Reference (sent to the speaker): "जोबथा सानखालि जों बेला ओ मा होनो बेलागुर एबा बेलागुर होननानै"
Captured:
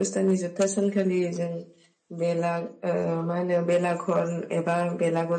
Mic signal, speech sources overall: echo only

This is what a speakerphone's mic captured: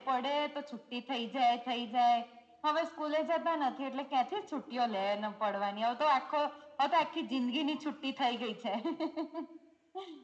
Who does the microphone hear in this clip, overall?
echo only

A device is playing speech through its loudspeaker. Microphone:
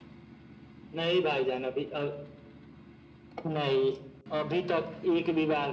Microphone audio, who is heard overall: echo only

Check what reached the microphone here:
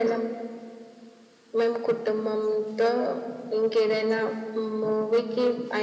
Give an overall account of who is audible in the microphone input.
echo only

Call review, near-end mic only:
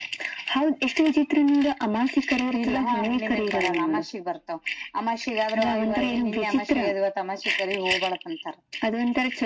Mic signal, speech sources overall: echo only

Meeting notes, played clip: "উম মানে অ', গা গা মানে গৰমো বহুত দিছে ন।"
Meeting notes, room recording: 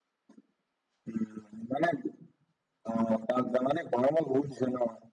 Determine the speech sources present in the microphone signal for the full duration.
echo only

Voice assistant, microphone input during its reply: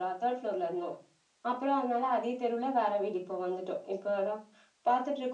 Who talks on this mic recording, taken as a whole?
echo only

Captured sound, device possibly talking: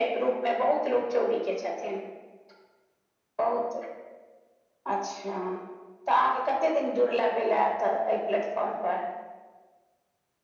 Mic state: echo only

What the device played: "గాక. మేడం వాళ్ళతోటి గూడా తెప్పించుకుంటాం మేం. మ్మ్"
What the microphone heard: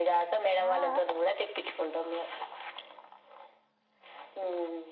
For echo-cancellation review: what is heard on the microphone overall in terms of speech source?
both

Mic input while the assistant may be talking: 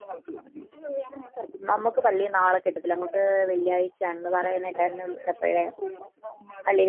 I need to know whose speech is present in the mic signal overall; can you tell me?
both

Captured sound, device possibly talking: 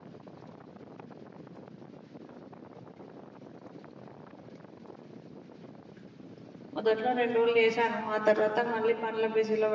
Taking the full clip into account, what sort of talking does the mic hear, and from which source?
user only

